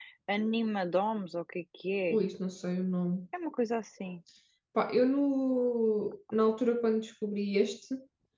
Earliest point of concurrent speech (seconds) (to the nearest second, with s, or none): none